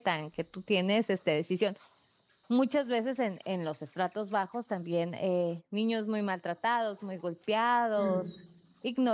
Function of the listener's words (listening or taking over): listening